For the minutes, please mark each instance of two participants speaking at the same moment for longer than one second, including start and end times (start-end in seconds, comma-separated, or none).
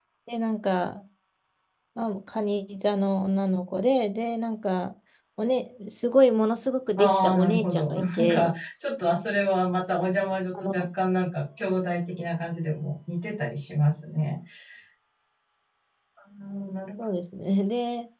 7.0-8.5